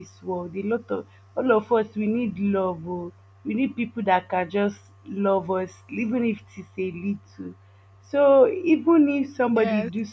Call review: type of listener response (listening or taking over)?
taking over